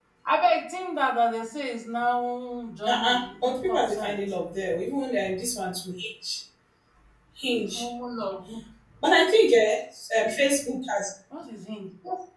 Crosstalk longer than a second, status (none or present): present